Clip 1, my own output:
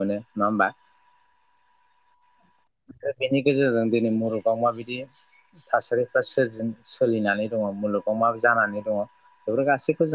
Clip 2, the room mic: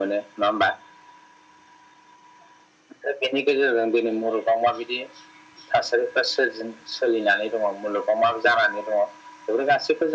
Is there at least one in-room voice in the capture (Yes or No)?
No